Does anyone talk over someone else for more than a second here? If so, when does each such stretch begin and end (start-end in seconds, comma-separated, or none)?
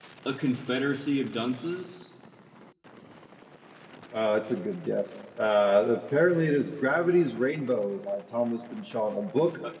none